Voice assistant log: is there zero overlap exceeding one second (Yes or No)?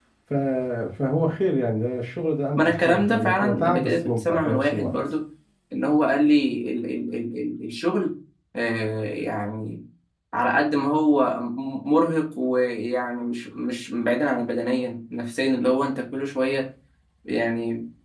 No